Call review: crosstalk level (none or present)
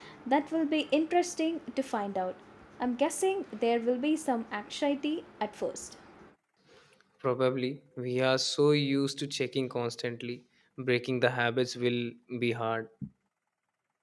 none